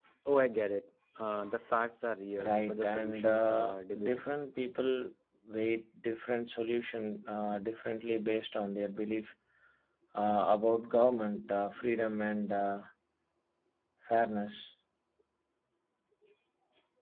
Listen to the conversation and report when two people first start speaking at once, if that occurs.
2.4 s

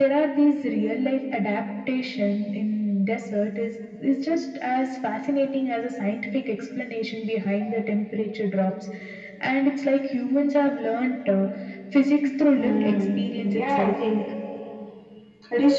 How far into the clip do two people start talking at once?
12.6 s

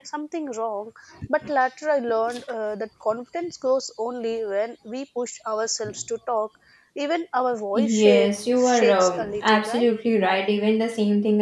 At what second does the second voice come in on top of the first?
7.8 s

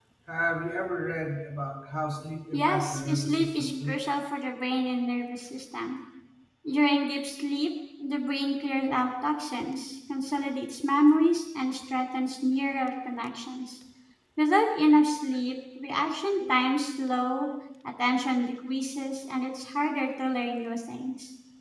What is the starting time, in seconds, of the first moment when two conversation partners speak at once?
2.5 s

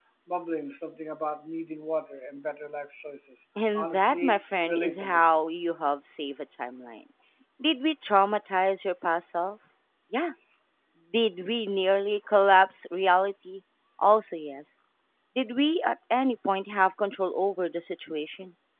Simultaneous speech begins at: 3.6 s

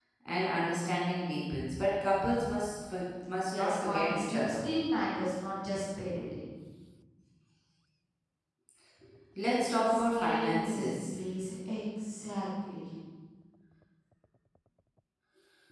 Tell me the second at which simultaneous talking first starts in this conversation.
3.4 s

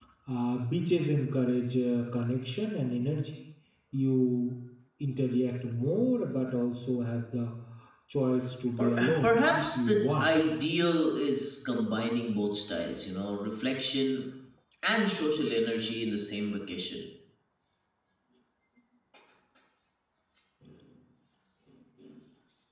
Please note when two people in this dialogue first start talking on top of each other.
8.8 s

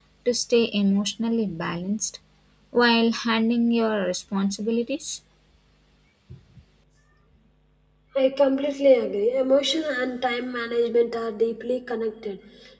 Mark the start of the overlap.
none

